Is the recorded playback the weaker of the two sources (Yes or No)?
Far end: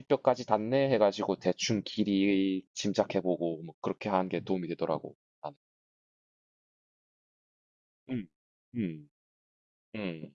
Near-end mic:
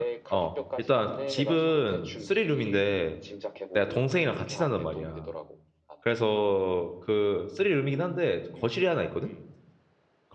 Yes